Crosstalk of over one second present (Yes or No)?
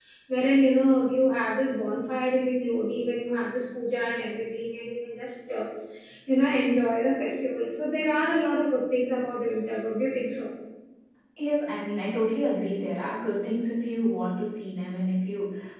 No